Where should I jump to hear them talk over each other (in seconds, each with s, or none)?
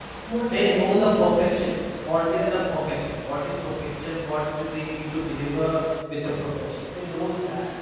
0.5 s